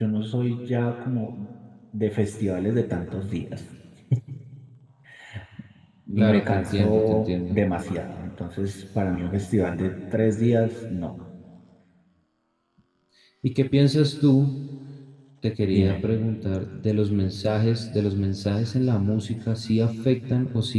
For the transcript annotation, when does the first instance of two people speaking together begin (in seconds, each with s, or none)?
6.2 s